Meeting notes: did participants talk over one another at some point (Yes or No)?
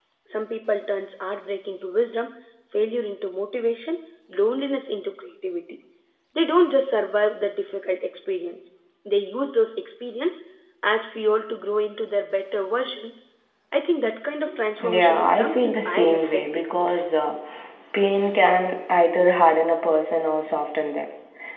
Yes